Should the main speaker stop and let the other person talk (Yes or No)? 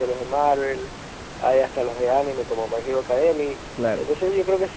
No